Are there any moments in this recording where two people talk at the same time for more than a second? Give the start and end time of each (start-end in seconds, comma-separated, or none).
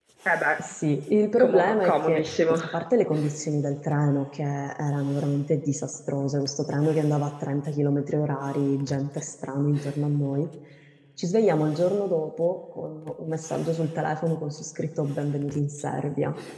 1.4-2.6